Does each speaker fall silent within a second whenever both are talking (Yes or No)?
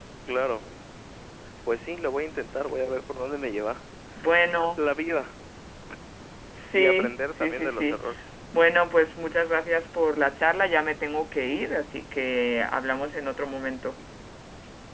No